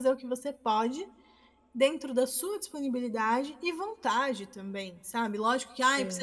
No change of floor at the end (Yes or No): Yes